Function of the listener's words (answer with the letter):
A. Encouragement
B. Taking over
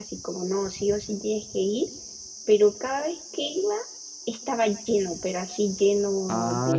B